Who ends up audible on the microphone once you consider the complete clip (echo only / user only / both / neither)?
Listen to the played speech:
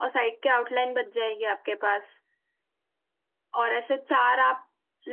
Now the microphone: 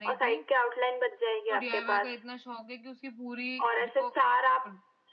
both